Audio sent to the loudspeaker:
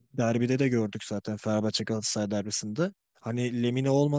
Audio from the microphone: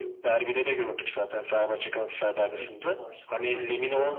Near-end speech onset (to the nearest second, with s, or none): 3 s